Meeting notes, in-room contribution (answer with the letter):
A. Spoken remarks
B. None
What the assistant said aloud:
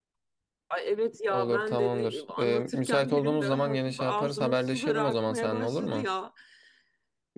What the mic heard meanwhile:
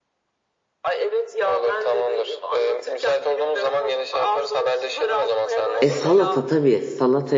A